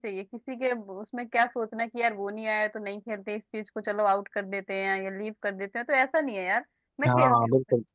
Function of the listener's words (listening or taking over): taking over